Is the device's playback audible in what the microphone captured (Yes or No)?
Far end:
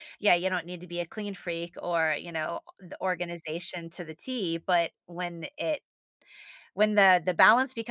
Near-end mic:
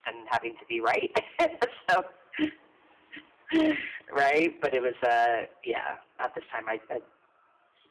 No